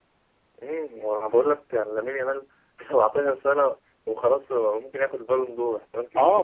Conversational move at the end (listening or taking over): taking over